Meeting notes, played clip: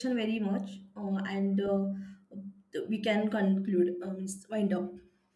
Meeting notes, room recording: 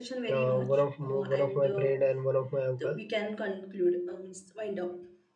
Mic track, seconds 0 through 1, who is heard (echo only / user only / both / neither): both